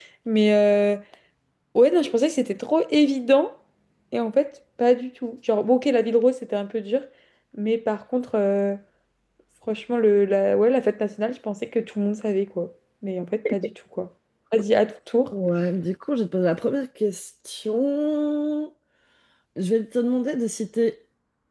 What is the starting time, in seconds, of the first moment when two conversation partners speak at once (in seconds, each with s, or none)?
none